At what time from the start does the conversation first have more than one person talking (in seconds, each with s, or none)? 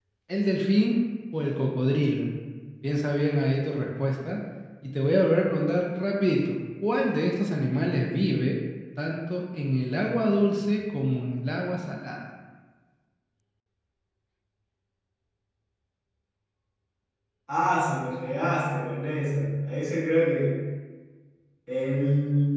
none